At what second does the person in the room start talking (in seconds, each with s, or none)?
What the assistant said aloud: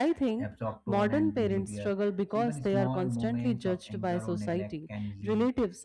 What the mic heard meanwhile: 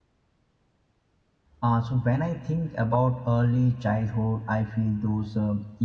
1.6 s